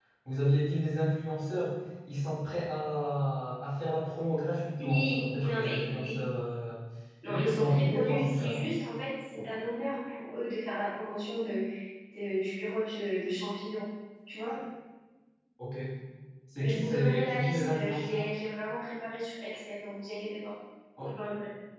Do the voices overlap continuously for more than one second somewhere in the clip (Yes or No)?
Yes